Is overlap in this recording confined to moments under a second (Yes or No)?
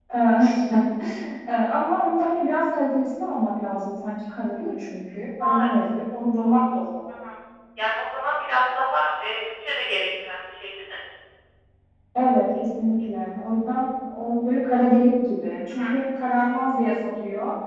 Yes